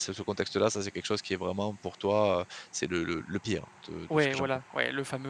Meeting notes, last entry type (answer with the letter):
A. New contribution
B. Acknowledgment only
A